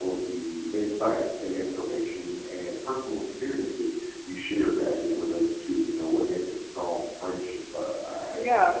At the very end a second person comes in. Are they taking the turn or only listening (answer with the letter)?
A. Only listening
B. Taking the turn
A